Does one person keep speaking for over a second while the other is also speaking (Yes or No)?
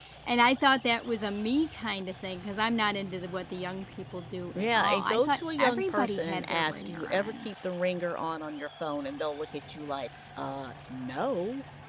Yes